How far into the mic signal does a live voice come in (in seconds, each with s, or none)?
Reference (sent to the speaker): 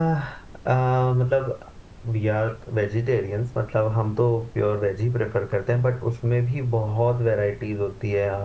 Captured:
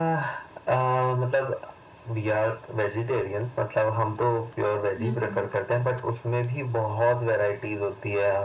5.0 s